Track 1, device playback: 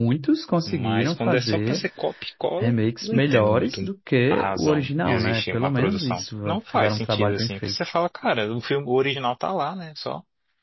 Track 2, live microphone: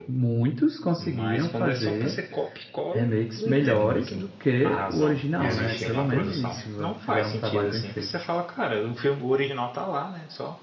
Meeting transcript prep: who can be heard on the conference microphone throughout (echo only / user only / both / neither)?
both